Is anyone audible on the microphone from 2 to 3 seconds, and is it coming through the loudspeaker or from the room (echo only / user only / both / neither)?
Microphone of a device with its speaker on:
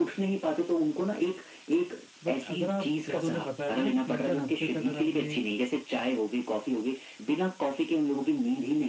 both